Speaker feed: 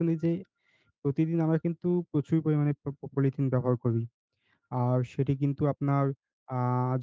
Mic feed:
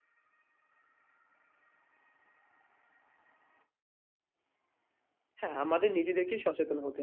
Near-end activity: present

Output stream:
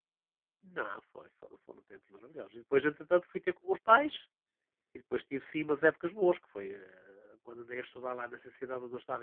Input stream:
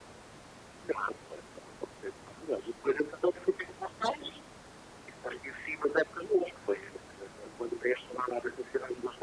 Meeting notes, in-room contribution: none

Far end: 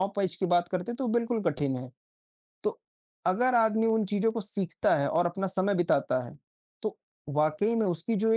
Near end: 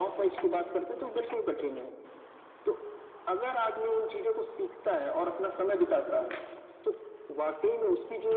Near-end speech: none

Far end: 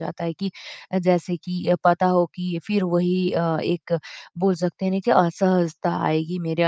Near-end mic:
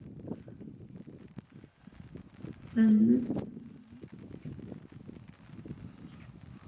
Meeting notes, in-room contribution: present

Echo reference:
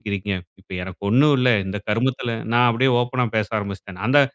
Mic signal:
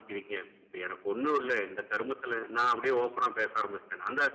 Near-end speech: none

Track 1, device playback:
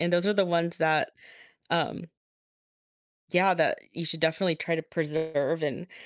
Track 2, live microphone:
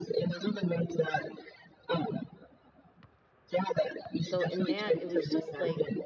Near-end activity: present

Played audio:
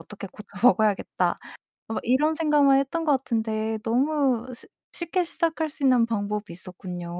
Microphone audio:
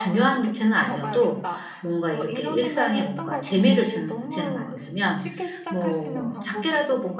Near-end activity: present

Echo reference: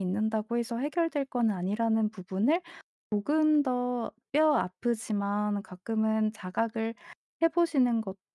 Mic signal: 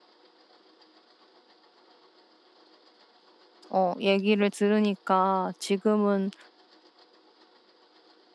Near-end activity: present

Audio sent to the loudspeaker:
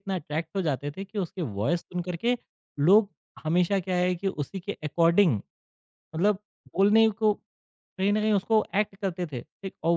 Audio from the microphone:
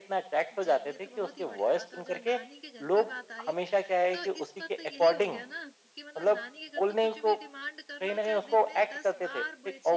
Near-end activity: present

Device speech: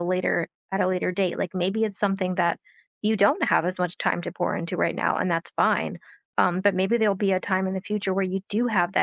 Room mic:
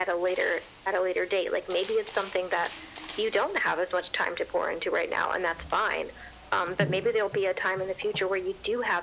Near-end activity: none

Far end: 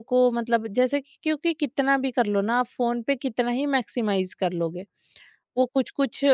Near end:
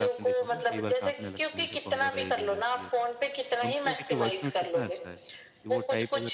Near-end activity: present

